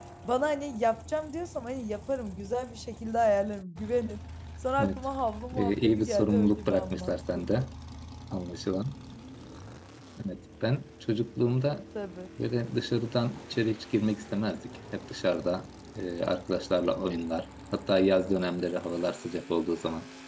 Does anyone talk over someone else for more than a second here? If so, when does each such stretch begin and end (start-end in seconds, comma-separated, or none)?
5.6-7.5